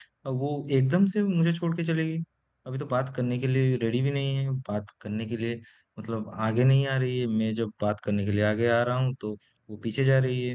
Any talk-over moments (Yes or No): No